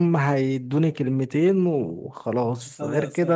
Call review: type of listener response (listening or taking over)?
listening